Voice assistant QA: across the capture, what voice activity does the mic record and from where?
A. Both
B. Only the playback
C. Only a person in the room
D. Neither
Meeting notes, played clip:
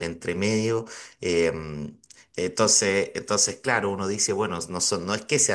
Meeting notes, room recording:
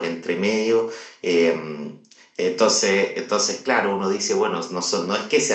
B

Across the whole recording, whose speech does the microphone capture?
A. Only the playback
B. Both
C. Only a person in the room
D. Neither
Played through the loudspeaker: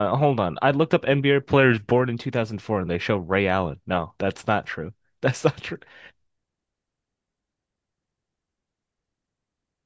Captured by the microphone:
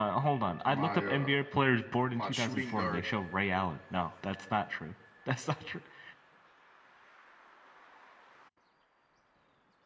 B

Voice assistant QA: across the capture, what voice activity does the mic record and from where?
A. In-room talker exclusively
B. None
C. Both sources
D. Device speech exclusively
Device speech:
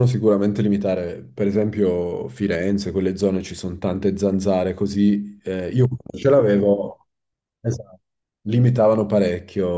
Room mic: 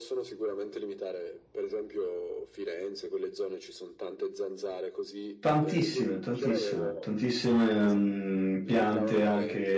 C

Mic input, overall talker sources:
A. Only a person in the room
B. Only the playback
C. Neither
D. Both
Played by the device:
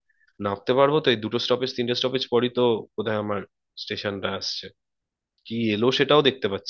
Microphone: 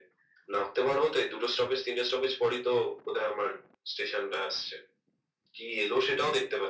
B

